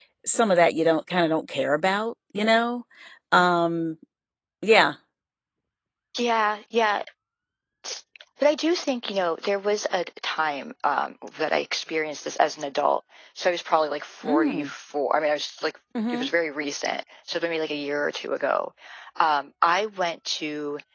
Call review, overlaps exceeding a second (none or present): none